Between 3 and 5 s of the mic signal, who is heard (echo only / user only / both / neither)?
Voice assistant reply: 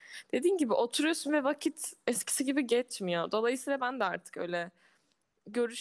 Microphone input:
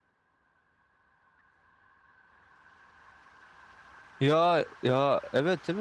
user only